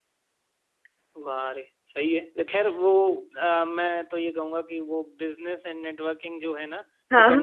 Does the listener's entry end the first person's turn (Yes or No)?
No